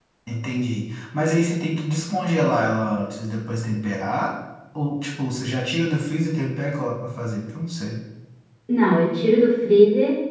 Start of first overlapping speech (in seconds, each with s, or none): none